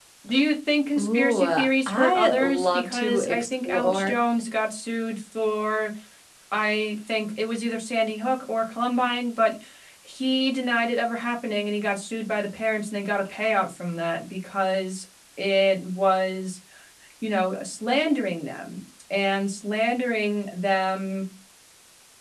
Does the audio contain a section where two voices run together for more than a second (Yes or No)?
Yes